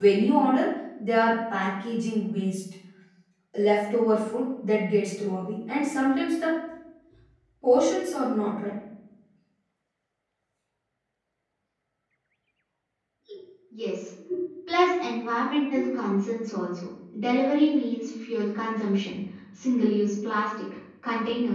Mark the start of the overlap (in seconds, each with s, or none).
none